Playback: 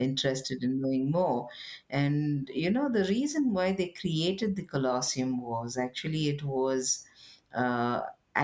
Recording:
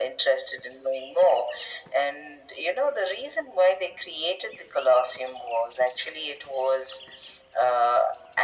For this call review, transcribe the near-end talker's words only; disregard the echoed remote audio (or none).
none